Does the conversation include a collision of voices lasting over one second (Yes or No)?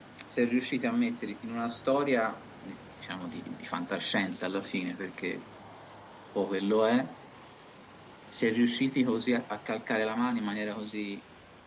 No